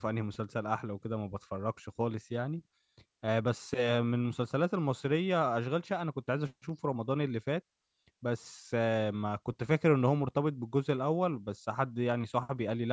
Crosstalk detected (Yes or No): No